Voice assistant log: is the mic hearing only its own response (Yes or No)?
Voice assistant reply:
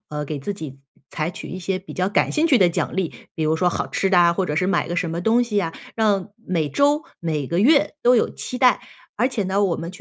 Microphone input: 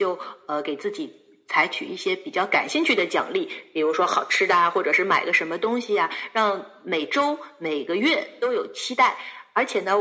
Yes